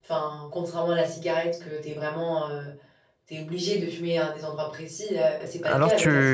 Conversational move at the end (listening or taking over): taking over